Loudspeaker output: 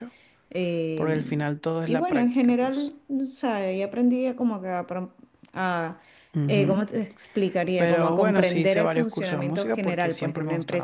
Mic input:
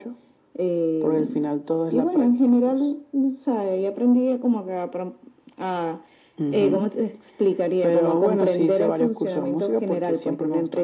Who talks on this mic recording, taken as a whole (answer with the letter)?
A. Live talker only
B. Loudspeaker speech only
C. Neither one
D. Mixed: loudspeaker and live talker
B